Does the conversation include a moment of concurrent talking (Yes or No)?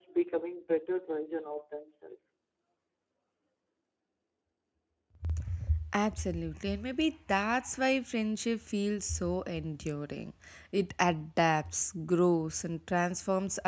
No